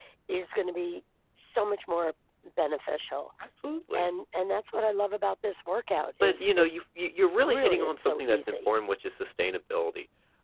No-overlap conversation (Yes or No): No